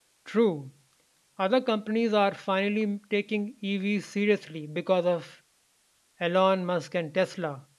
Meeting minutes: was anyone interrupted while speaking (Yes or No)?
No